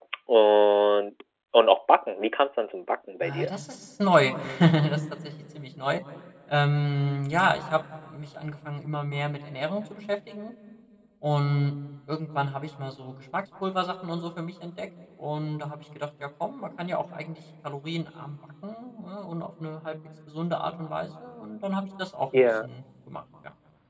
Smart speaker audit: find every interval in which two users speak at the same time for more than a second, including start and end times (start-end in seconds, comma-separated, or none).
none